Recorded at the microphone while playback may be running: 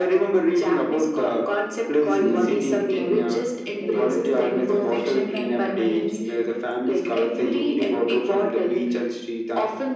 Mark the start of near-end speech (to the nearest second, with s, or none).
2 s